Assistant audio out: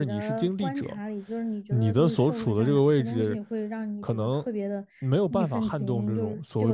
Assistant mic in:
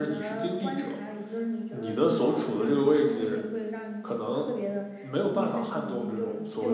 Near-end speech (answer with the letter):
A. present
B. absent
B